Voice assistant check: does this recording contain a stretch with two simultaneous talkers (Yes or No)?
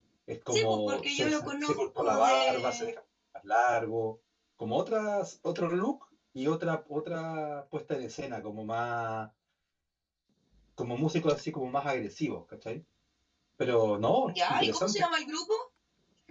Yes